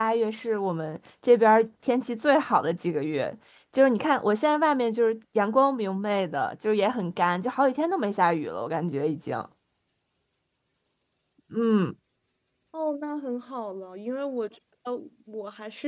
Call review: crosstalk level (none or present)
none